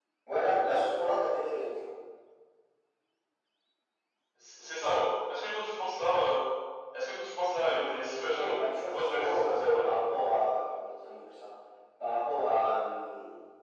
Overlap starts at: 7.7 s

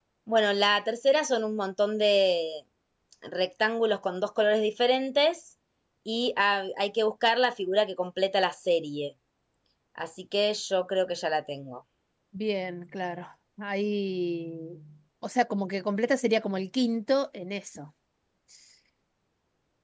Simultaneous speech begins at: none

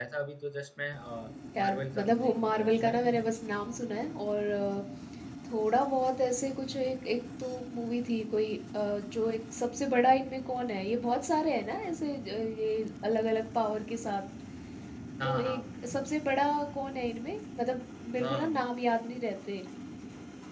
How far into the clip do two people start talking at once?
1.6 s

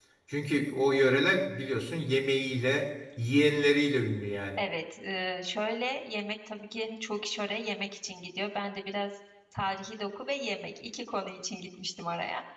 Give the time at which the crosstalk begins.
none

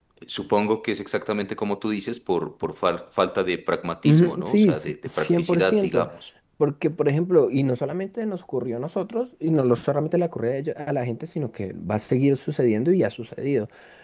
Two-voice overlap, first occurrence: 4.0 s

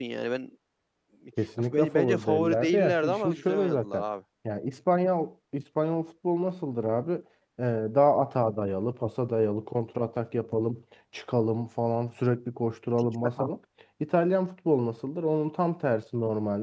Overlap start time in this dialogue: 1.7 s

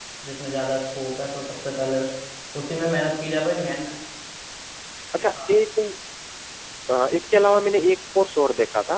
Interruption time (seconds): none

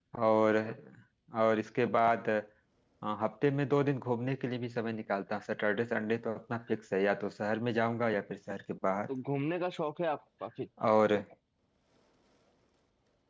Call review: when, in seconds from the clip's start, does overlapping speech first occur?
none

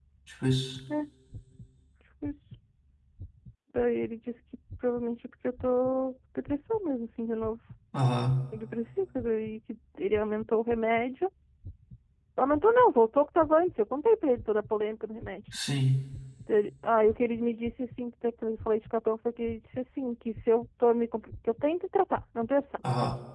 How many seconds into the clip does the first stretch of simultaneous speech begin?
none

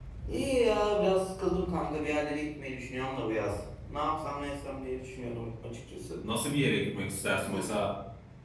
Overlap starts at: none

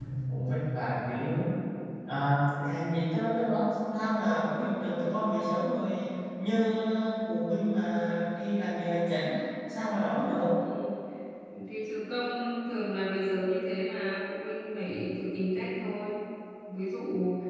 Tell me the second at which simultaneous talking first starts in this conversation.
none

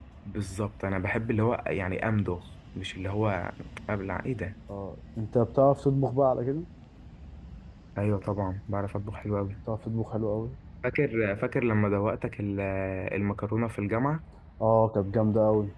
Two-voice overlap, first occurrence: none

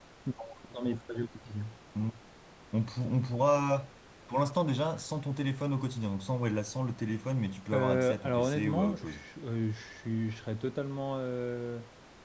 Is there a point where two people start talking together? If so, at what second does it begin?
7.7 s

